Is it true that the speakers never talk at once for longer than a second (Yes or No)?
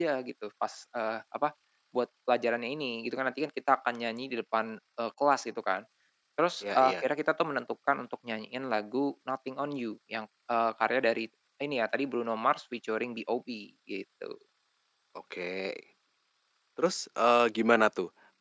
Yes